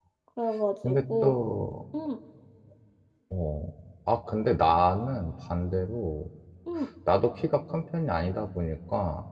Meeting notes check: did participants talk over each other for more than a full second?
No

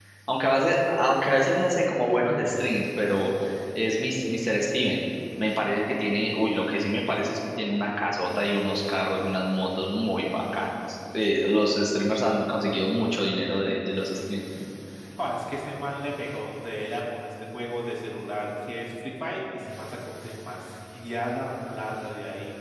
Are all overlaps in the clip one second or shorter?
Yes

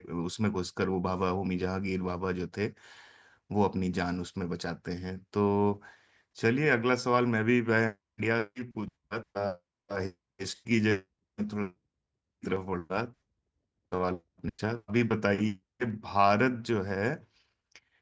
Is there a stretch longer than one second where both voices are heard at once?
No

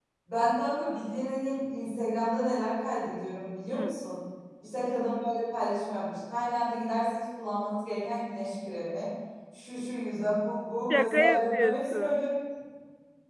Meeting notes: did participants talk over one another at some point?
Yes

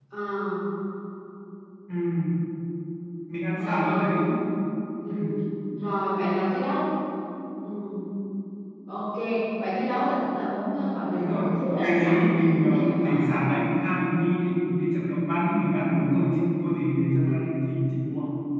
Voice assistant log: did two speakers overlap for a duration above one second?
Yes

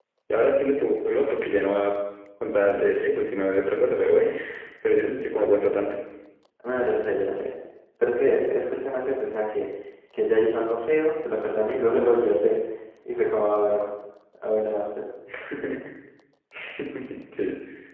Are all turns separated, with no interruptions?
Yes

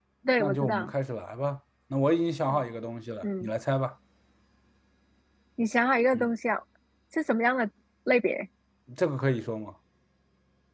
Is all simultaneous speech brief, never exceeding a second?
Yes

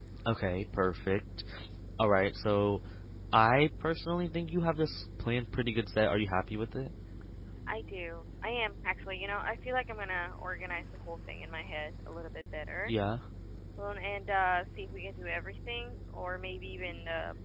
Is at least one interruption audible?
No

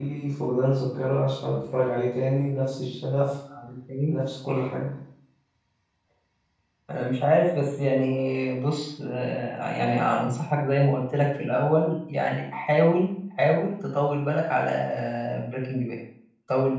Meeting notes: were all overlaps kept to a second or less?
Yes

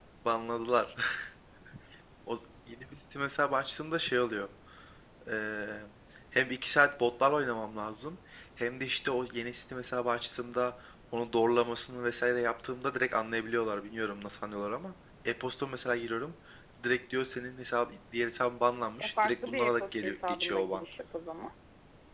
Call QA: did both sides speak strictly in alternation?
No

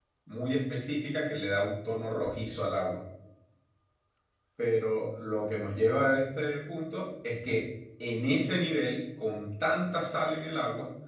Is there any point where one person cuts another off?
No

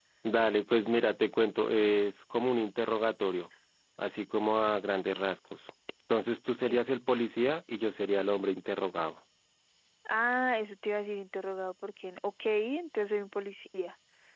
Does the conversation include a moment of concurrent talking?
No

